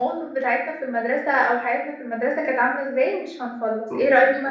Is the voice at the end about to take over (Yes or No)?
No